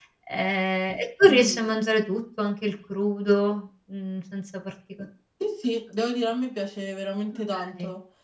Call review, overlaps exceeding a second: none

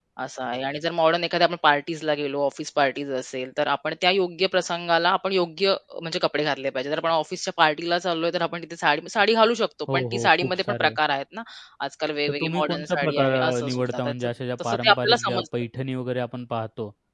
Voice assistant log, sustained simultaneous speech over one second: present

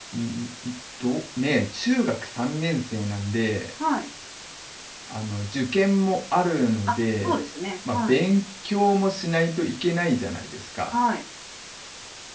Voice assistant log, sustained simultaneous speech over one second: none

